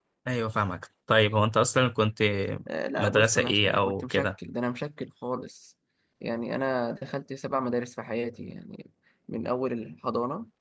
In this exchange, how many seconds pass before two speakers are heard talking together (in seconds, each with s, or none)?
3.0 s